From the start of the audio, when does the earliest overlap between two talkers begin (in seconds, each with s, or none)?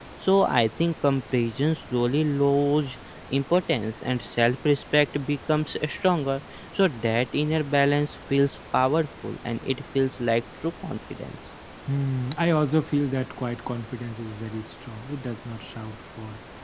none